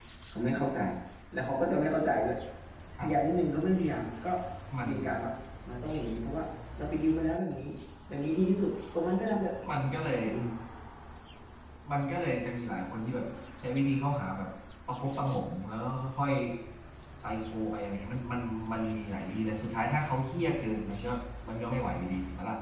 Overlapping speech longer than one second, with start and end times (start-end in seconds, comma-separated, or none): none